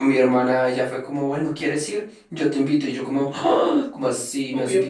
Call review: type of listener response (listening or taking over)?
listening